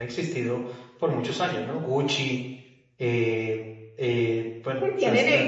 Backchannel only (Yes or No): No